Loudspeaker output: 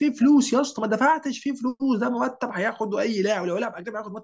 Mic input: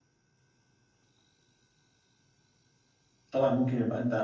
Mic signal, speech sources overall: user only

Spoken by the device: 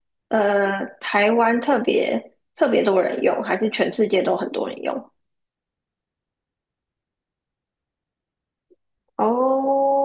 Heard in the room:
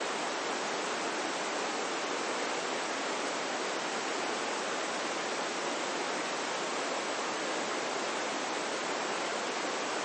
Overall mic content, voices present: neither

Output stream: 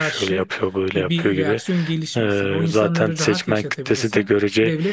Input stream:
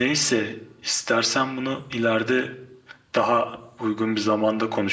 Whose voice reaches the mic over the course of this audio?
user only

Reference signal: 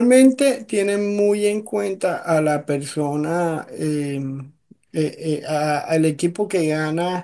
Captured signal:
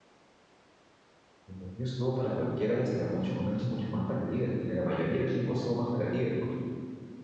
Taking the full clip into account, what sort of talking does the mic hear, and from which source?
user only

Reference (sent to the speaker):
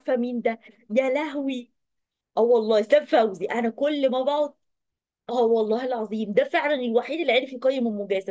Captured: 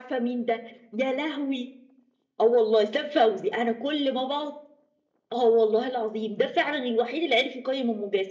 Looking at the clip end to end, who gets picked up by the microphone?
echo only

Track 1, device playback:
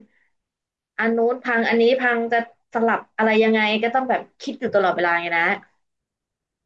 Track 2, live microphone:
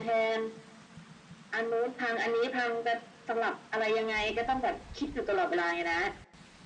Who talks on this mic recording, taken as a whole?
echo only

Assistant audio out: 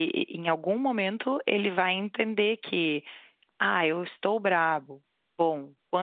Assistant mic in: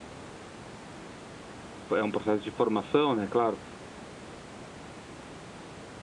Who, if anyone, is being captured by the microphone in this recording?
user only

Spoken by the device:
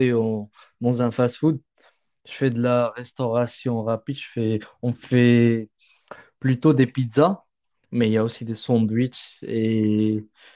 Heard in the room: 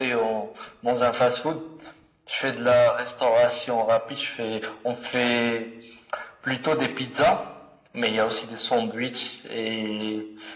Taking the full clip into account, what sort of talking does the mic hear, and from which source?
echo only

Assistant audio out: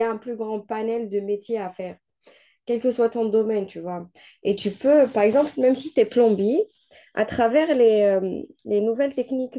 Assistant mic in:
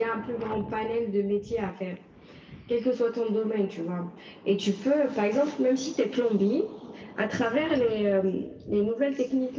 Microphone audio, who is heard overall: echo only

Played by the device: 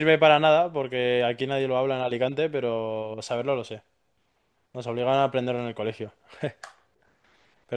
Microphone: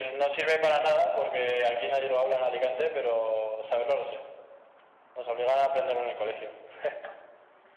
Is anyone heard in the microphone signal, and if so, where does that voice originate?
echo only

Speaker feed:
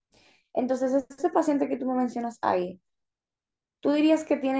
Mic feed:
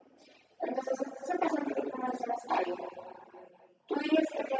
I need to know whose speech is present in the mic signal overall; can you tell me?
echo only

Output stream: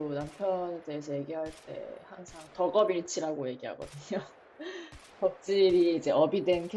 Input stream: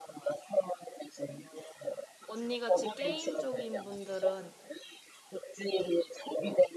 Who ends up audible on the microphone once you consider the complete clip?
both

